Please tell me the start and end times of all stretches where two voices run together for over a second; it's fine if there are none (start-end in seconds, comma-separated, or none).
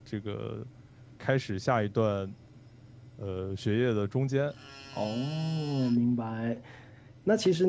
none